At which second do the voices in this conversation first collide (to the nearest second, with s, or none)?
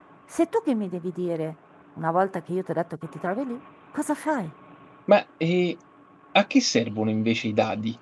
none